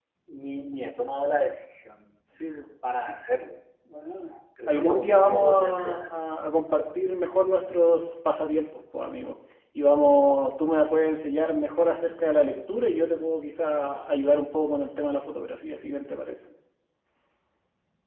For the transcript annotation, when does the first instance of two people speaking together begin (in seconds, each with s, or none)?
4.7 s